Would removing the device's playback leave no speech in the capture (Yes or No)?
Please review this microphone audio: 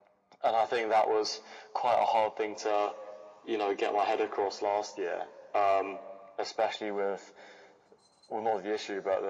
Yes